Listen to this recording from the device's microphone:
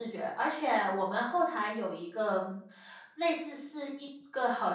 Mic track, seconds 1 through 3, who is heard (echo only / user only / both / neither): user only